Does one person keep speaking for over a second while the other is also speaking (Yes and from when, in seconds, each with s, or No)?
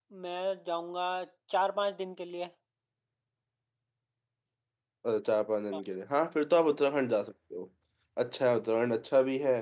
No